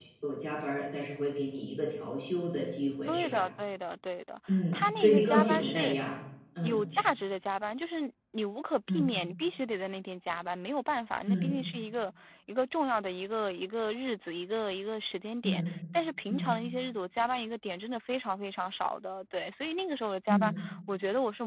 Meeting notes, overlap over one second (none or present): present